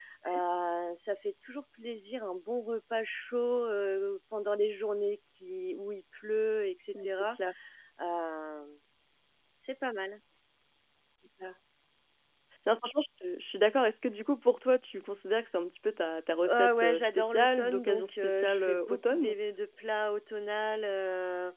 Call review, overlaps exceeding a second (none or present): present